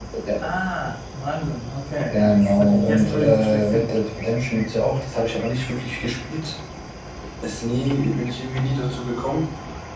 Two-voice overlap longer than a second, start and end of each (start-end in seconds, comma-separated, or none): 2.1-3.9